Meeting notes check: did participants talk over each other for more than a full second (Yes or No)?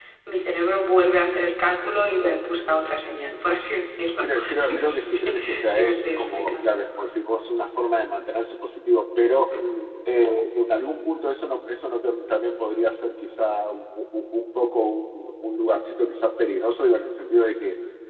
Yes